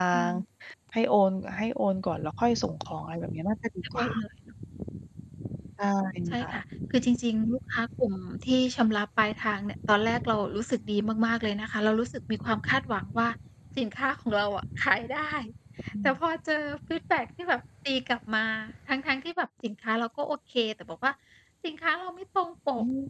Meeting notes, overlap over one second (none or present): none